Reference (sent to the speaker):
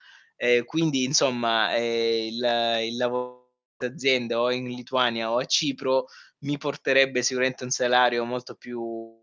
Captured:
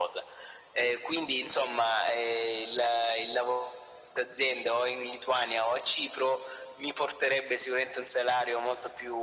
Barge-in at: none

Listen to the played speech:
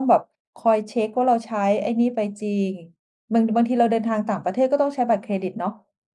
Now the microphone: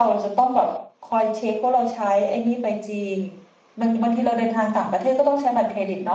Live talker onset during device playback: none

